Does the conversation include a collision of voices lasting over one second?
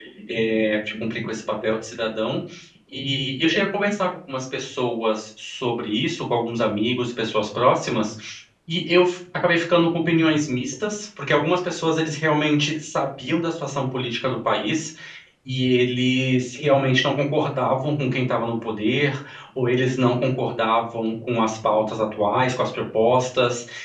No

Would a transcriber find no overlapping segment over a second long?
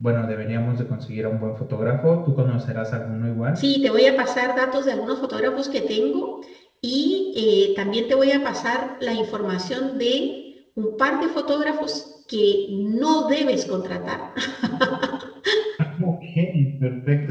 Yes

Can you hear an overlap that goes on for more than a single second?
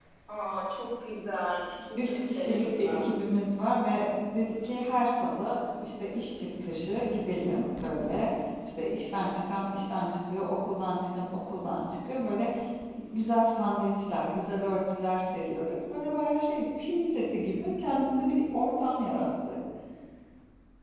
Yes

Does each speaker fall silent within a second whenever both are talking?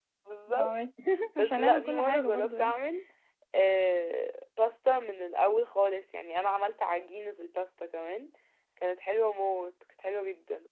No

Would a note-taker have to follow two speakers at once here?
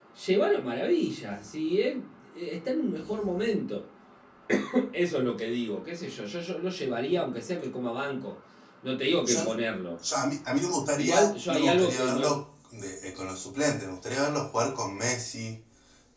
Yes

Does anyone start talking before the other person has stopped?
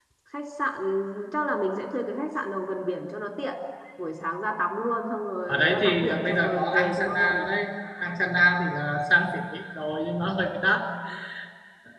Yes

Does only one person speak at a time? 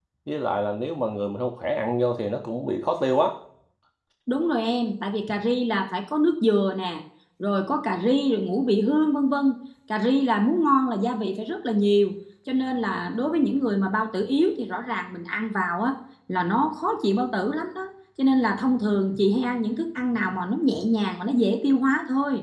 Yes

